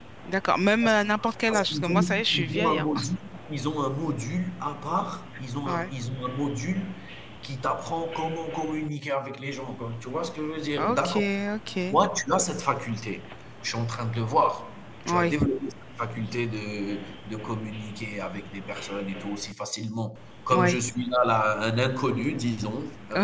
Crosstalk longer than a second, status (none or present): present